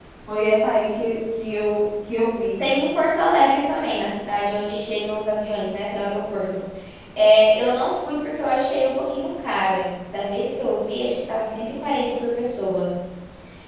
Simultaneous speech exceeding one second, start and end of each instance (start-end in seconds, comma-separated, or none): none